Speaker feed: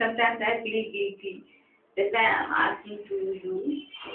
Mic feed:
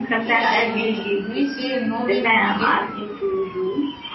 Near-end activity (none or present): present